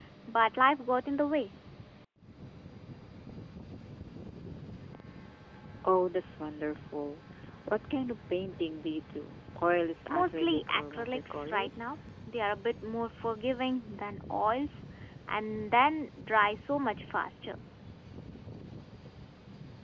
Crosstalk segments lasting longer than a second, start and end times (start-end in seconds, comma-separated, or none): 10.1-12.0